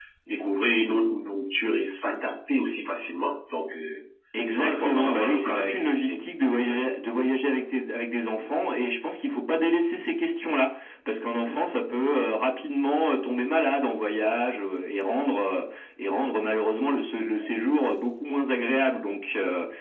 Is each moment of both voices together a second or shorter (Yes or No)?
No